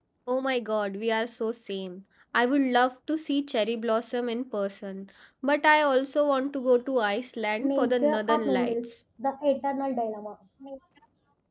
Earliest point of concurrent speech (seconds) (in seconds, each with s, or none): 7.6 s